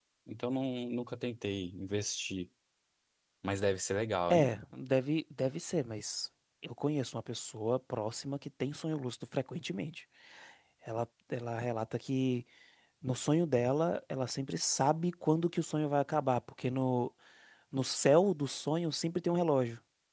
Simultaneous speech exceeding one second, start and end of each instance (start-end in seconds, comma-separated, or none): none